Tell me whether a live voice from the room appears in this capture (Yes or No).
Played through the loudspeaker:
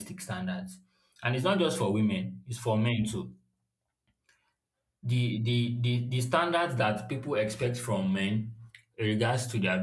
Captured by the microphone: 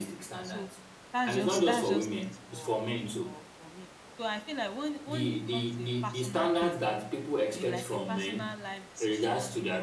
Yes